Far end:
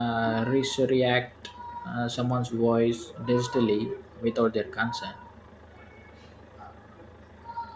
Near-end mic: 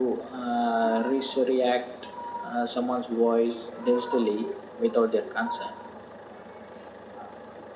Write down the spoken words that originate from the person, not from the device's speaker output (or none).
none